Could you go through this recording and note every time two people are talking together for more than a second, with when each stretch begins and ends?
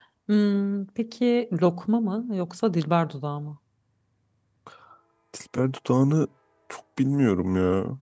none

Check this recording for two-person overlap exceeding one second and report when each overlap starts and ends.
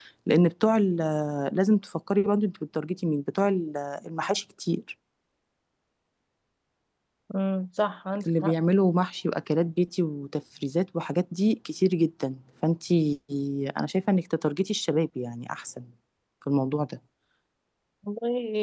none

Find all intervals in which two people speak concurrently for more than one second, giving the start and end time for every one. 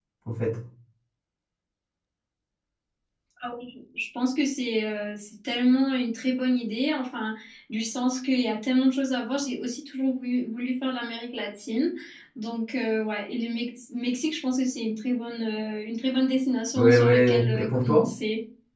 16.8-18.1

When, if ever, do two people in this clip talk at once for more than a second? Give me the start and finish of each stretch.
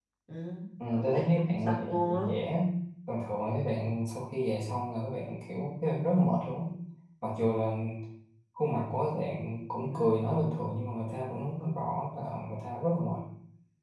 0.9-2.3

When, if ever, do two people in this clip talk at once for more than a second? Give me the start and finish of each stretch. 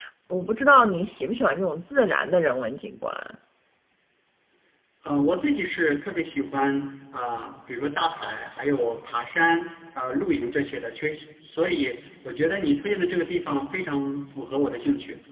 none

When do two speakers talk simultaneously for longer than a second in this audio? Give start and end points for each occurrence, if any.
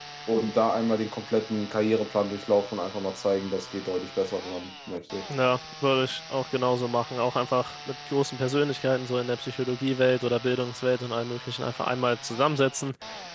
none

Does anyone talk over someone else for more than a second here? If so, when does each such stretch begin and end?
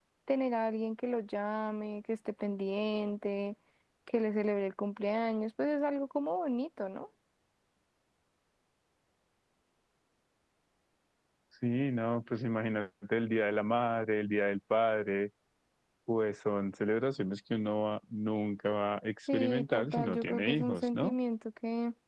19.3-21.2

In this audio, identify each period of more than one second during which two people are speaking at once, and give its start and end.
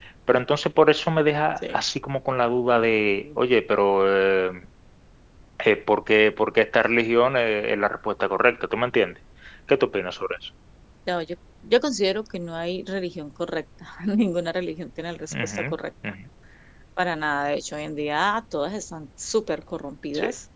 none

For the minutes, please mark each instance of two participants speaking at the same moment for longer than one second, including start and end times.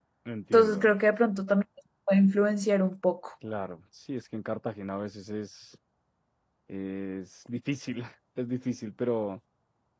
none

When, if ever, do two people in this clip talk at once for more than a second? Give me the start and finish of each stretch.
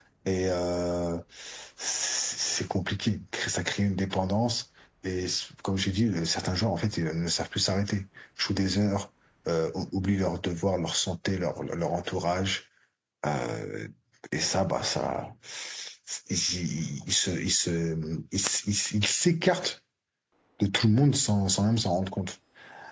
none

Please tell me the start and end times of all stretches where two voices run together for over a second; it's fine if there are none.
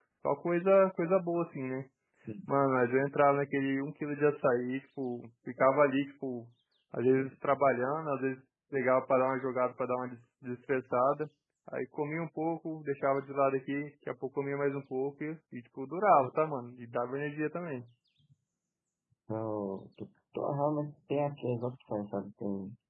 none

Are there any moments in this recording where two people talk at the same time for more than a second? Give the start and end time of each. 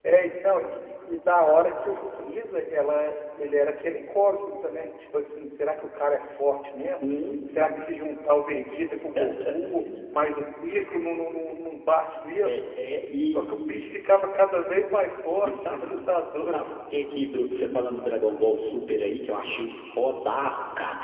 none

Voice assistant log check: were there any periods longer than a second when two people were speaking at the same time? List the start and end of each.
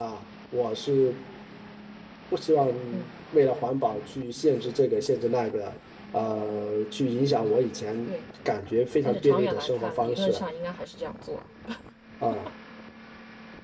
9.0-10.4

